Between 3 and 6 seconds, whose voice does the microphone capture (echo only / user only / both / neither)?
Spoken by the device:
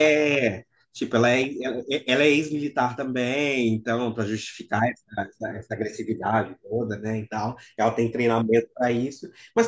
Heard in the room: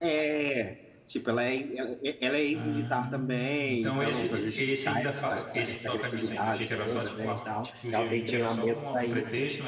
both